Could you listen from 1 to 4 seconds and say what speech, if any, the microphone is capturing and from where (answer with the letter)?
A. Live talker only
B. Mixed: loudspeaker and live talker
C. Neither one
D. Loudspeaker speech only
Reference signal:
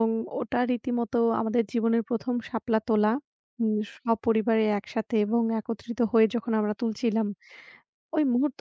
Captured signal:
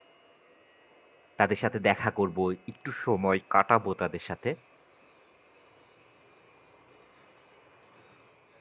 A